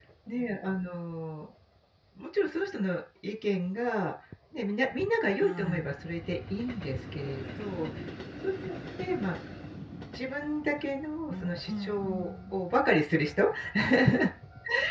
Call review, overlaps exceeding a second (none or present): present